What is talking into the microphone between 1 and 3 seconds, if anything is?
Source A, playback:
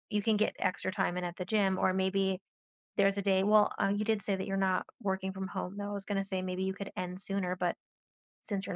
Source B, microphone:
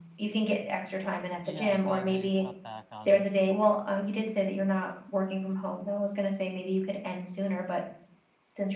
both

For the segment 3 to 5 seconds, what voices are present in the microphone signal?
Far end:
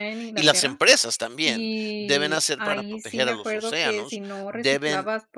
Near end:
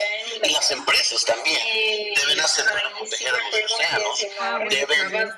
both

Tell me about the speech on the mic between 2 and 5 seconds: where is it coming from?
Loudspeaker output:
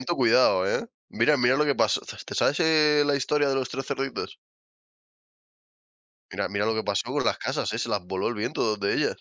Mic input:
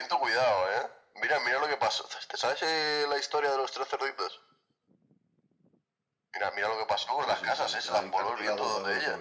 echo only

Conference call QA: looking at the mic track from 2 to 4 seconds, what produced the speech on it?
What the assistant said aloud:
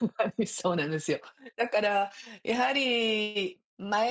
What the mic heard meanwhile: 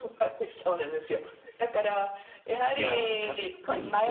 both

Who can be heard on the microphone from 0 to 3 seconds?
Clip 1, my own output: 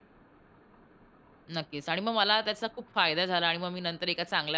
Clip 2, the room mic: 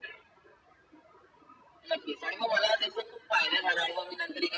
echo only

